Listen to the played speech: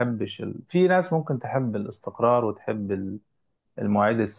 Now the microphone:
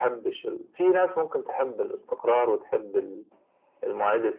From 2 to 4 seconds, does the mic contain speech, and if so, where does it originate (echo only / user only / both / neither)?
echo only